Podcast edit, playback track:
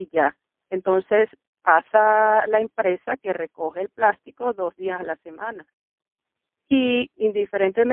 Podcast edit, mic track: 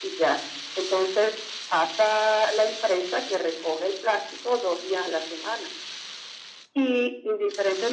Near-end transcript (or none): none